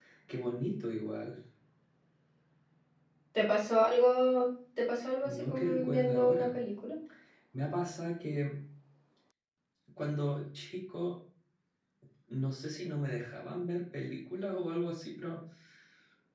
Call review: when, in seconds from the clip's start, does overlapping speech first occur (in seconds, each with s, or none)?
5.2 s